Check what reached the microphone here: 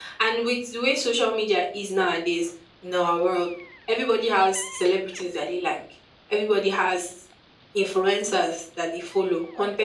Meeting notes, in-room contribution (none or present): none